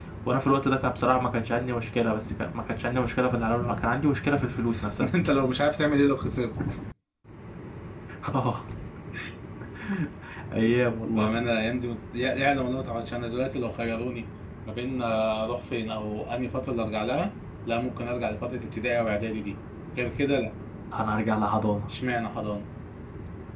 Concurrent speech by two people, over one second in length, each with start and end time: none

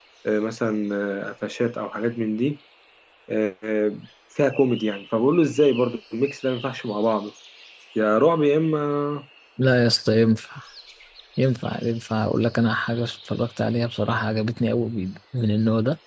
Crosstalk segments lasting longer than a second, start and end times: none

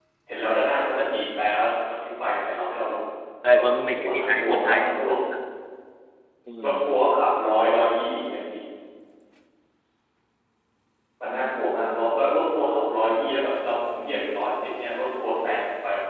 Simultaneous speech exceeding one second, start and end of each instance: 3.5-4.8

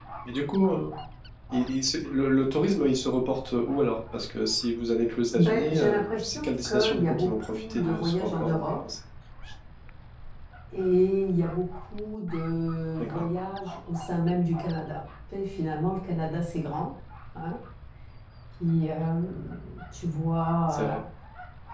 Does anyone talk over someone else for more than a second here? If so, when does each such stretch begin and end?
5.3-8.7

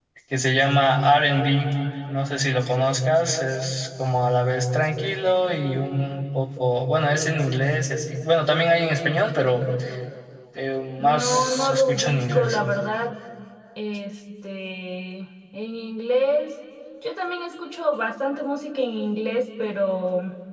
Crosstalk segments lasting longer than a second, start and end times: 11.0-12.6

